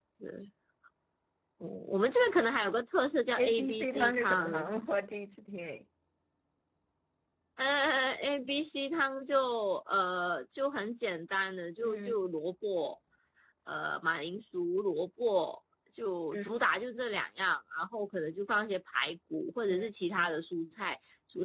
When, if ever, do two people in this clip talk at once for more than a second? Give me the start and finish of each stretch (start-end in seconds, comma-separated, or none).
3.4-4.7